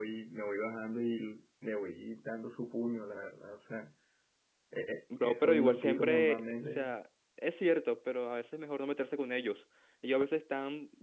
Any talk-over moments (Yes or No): Yes